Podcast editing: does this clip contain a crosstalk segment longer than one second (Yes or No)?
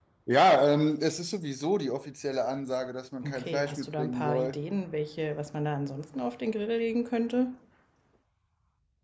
Yes